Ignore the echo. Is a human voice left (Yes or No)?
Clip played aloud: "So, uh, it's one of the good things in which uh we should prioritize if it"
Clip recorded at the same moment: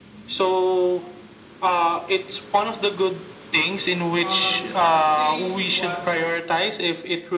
Yes